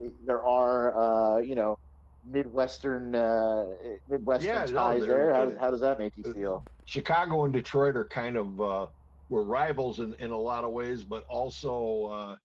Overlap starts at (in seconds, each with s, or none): 4.4 s